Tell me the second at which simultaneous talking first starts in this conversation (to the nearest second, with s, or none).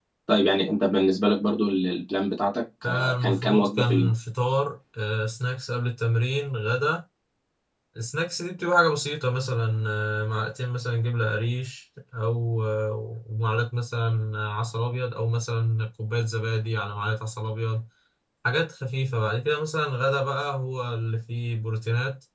3 s